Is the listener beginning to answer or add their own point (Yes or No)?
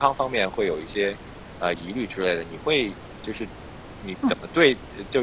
No